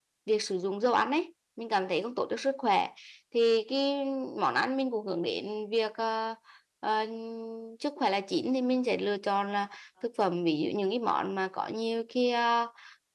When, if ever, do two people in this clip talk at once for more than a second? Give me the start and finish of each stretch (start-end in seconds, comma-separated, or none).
none